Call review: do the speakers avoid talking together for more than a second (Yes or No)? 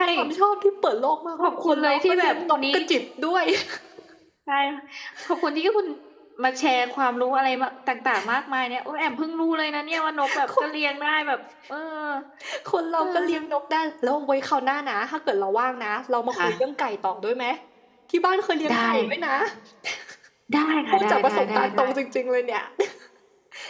No